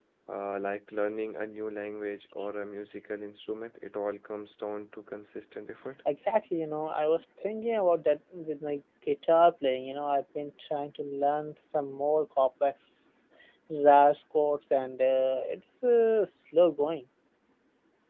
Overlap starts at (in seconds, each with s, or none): none